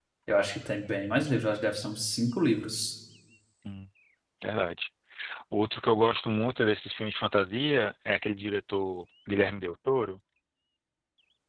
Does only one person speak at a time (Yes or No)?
Yes